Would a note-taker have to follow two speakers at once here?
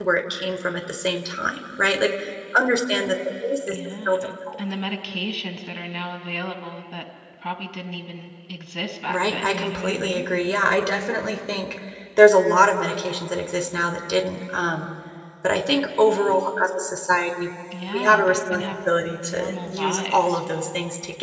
Yes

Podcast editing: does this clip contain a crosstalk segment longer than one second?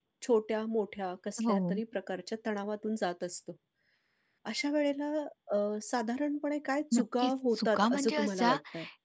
Yes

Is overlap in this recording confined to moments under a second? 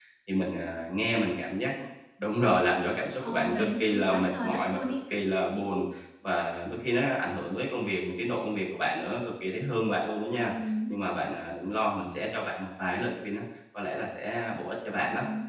No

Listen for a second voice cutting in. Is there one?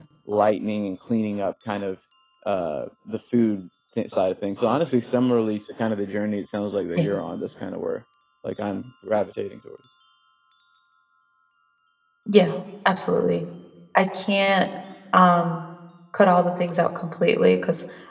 No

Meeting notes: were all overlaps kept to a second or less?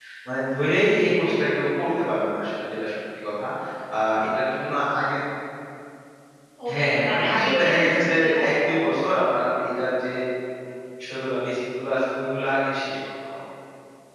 No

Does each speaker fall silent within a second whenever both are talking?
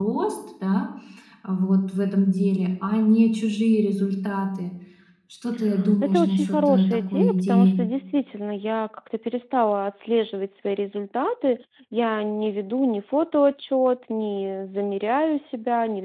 No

